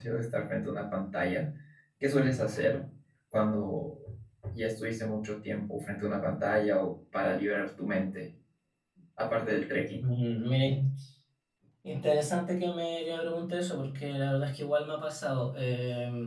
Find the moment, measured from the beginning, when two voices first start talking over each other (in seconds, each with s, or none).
none